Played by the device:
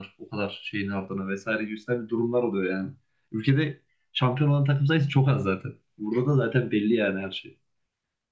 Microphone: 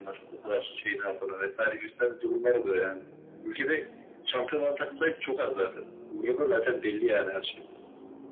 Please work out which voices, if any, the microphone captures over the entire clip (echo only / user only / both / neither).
echo only